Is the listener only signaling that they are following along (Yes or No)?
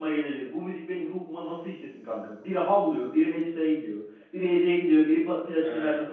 No